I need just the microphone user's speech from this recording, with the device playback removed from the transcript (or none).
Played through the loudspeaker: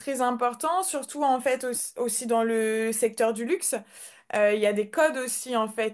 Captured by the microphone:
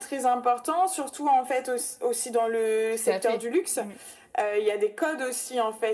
Tout à fait. Oui.